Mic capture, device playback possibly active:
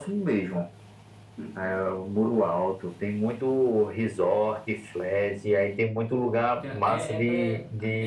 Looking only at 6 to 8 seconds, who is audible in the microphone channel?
both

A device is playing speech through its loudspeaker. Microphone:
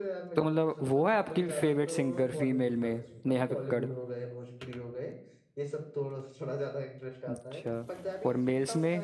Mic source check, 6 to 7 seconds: echo only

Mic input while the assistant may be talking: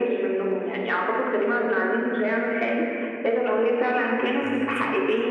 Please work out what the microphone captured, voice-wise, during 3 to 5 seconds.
both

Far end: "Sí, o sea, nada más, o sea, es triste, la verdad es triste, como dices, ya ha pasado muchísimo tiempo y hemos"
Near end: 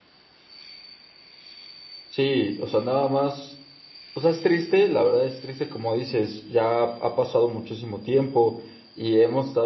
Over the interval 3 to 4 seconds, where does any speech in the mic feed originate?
echo only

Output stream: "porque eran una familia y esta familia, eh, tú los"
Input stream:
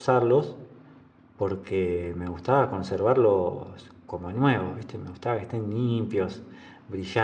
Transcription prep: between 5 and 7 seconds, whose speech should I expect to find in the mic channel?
user only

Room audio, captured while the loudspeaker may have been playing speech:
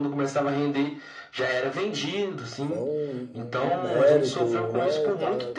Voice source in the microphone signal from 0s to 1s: echo only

